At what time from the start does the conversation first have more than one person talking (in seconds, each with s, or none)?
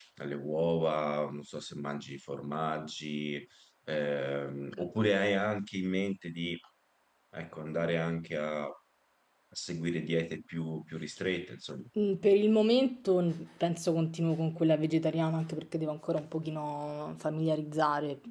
none